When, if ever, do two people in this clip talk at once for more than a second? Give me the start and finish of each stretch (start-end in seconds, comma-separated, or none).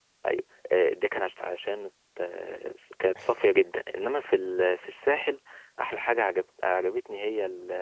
none